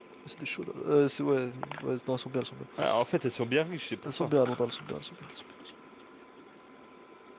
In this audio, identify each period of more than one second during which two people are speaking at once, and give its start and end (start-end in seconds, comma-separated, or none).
none